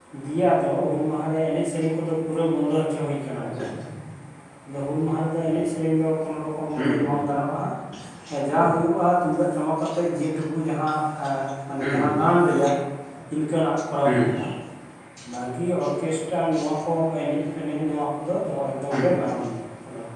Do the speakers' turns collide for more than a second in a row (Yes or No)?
No